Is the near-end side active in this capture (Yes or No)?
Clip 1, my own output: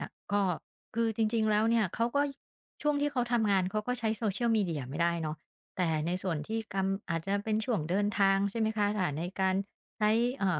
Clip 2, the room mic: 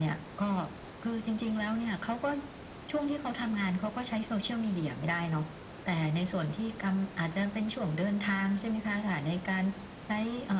No